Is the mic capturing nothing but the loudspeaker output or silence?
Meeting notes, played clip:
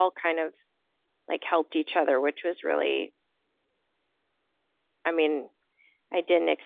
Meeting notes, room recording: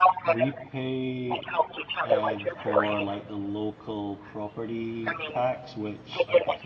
No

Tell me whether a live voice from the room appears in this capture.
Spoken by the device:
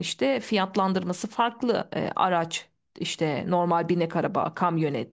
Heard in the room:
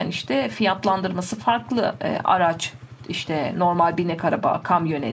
No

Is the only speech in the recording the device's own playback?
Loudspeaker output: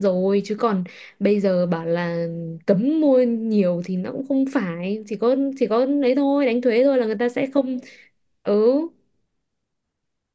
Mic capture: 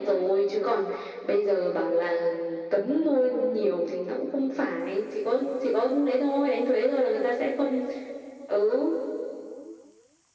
Yes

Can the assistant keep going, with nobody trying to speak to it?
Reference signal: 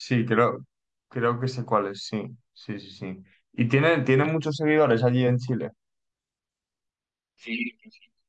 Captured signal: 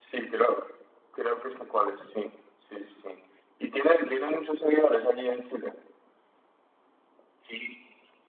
Yes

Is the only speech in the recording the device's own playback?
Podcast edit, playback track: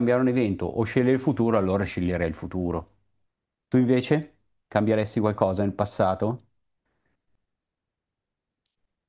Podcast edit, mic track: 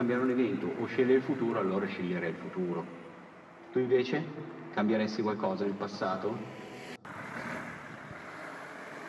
Yes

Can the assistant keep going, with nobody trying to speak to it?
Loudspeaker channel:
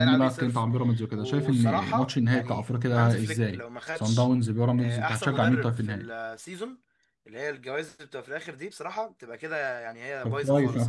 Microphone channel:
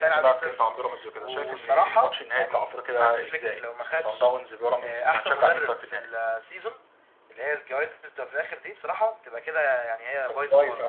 Yes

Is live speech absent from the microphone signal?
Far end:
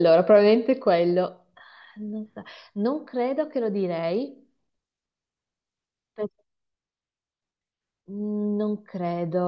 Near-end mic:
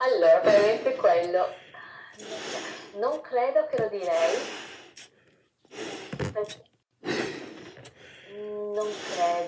Yes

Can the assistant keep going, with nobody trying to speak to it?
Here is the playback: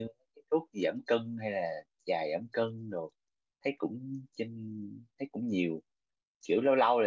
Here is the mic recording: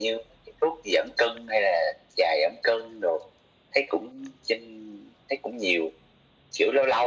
Yes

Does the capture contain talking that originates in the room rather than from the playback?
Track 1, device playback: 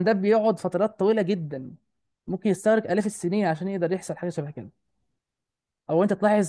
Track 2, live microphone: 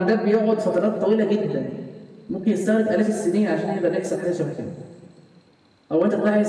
No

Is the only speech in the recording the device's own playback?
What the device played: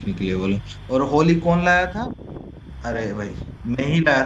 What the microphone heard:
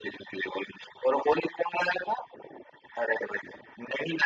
Yes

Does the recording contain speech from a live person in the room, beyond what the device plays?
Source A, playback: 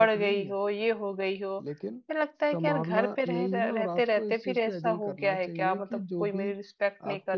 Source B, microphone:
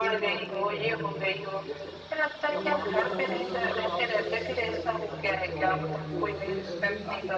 Yes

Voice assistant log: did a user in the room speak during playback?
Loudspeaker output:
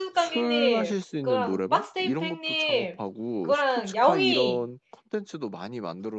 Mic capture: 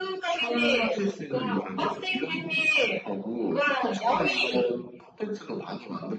No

